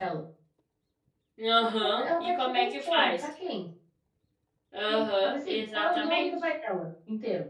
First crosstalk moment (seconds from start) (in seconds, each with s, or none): 1.8 s